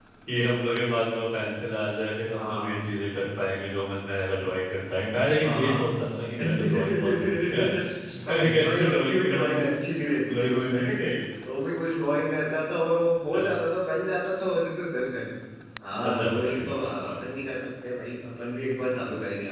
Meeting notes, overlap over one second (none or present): present